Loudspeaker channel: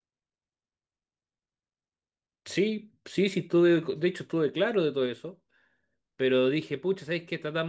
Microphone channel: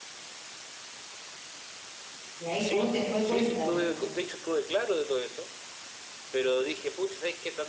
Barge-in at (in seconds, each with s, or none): 2.4 s